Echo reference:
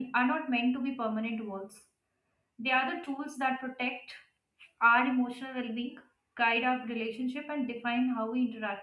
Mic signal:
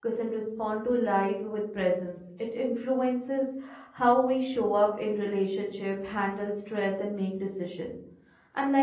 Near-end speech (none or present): present